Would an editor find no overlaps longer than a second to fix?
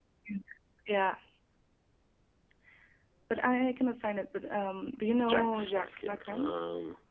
No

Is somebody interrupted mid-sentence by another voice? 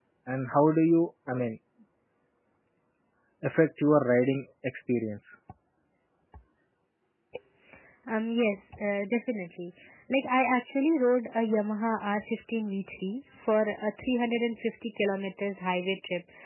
No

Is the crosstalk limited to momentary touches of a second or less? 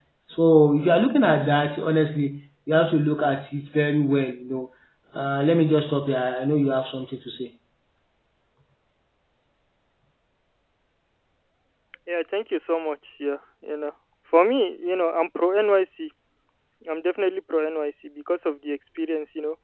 Yes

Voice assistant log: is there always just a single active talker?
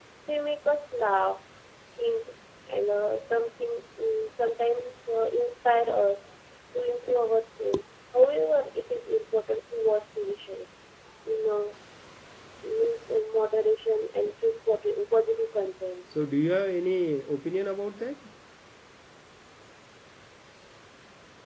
Yes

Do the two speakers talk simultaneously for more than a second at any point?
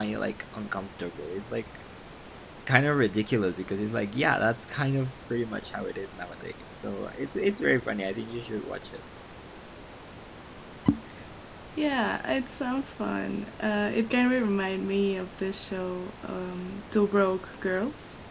No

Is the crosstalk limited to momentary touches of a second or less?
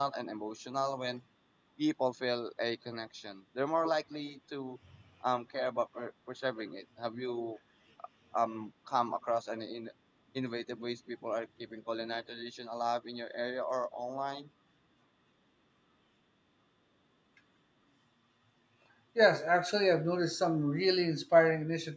Yes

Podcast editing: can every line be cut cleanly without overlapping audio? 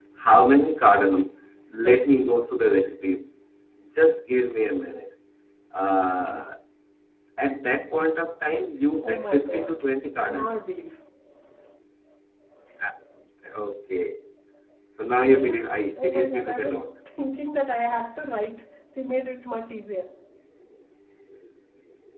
No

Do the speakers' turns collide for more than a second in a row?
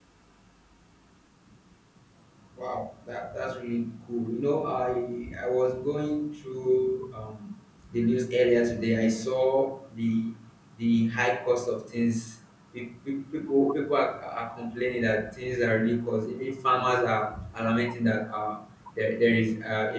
No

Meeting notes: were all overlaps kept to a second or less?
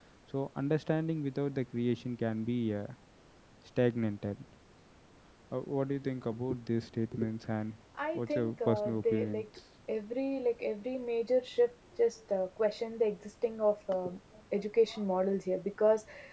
No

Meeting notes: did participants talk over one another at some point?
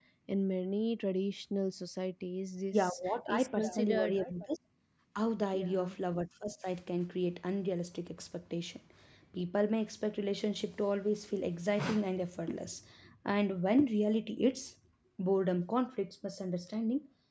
Yes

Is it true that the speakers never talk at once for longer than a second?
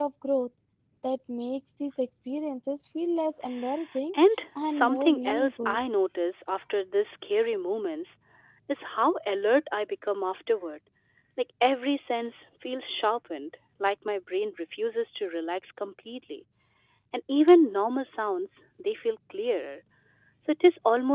No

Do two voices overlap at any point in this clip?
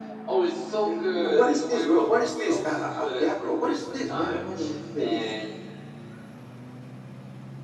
Yes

